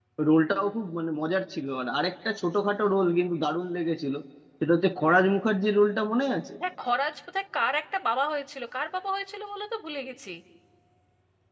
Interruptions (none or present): none